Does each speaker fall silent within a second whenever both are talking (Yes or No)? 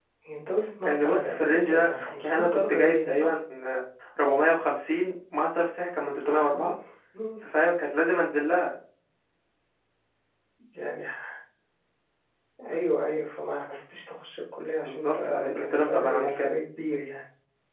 No